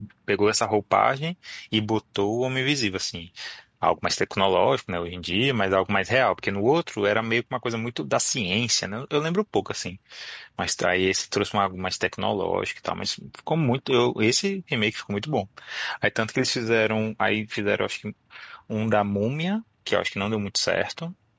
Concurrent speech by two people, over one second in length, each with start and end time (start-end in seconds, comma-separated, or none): none